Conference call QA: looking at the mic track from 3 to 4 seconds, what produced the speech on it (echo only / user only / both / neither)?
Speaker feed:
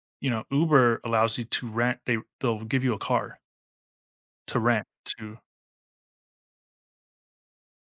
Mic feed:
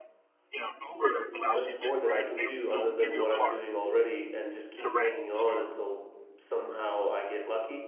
both